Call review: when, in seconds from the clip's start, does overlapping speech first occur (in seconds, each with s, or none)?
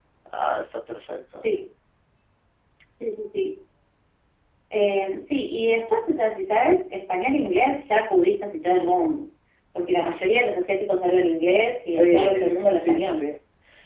11.9 s